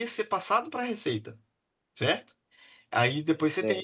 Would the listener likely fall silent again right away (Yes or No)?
Yes